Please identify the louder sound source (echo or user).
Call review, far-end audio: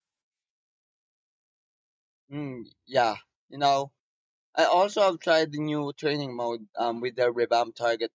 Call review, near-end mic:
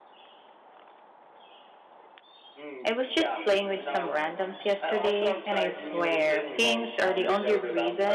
user